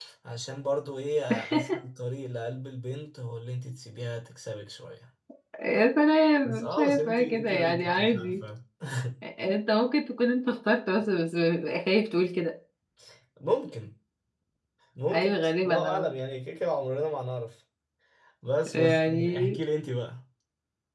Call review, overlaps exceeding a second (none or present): present